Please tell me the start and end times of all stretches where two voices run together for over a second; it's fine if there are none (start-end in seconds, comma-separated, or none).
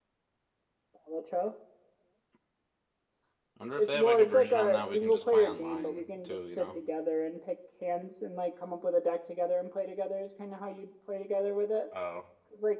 3.8-6.7